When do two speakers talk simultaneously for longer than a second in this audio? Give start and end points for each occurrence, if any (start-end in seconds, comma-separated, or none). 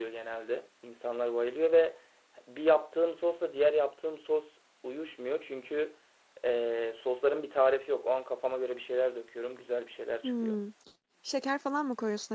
none